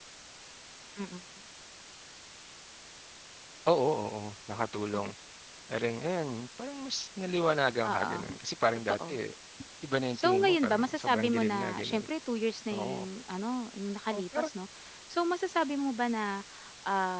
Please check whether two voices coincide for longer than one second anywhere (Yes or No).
Yes